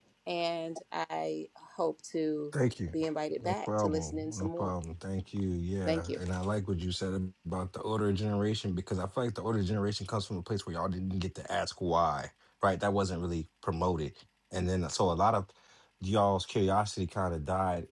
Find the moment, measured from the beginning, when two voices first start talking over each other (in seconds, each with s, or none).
3.4 s